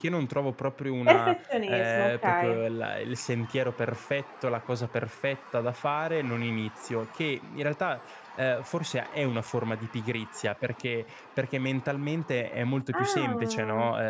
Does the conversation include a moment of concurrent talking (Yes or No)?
Yes